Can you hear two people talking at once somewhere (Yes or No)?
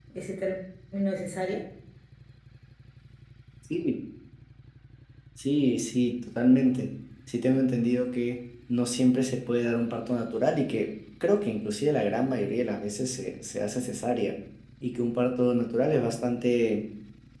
No